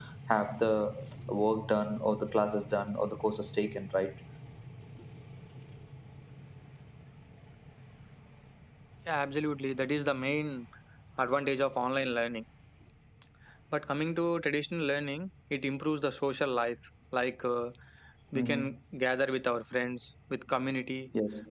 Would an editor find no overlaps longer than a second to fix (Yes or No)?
Yes